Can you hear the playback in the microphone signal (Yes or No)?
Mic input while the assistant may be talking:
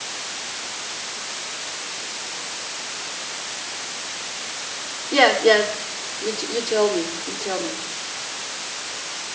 No